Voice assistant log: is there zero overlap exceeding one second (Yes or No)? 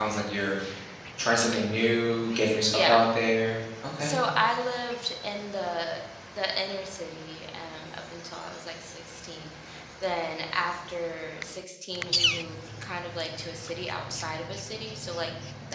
Yes